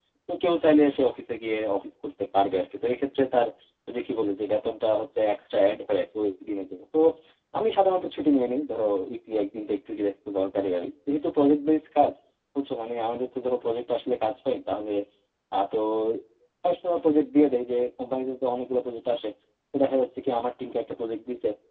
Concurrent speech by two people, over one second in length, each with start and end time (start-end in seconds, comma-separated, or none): none